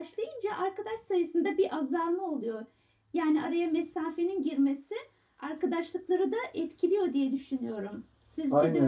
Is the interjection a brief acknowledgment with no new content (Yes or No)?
No